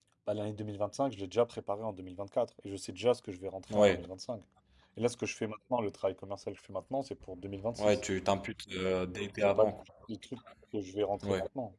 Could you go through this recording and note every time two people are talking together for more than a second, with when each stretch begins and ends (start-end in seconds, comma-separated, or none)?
none